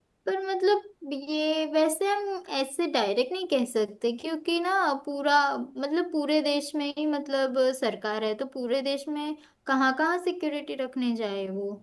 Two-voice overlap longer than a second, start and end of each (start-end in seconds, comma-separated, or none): none